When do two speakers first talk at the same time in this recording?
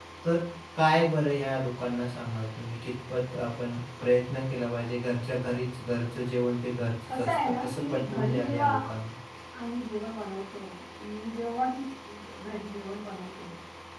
7.1 s

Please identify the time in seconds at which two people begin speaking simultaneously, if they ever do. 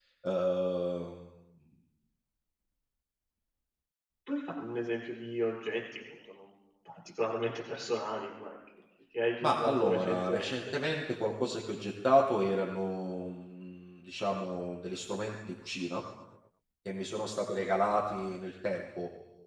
9.4 s

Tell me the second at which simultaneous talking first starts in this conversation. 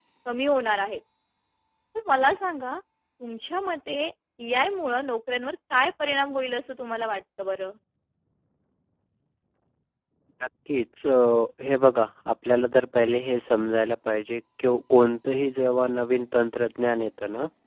none

